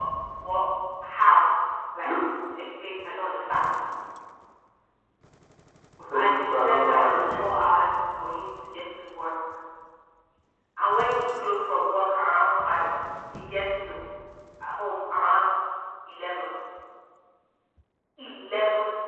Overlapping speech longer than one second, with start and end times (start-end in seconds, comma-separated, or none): 6.1-7.5